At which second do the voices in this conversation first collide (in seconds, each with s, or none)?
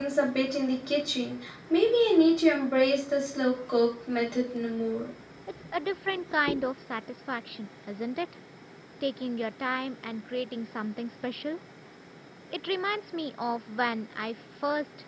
none